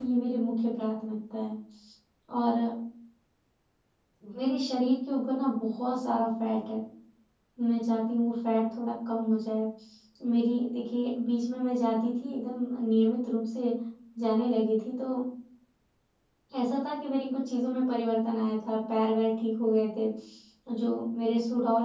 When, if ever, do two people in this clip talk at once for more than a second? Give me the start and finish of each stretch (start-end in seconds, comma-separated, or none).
none